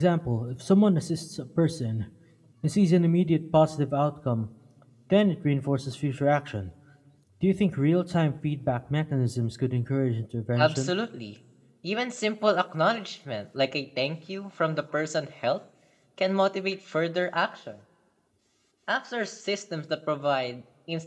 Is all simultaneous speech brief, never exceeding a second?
Yes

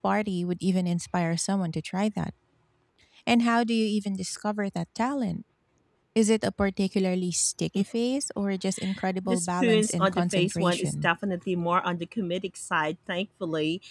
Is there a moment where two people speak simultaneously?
Yes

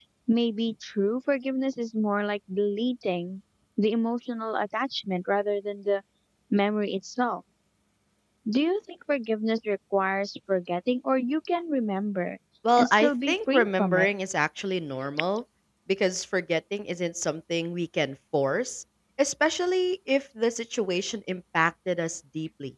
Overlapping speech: Yes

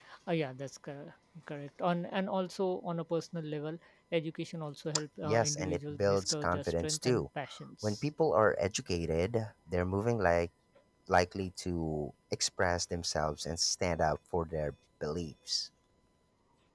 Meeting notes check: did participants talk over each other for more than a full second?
Yes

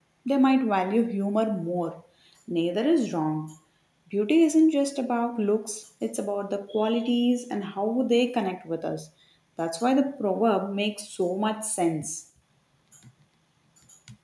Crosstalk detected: No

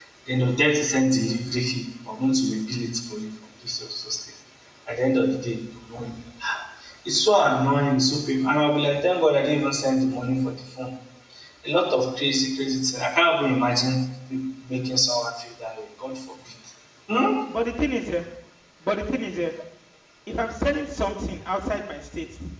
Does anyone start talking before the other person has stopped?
No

